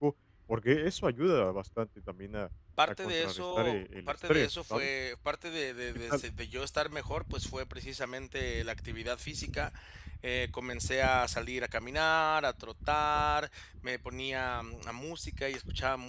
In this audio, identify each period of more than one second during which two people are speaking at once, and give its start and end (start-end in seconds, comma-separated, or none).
2.9-4.9